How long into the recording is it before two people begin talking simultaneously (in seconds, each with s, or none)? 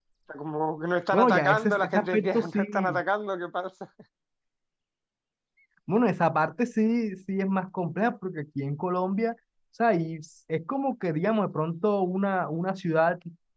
1.1 s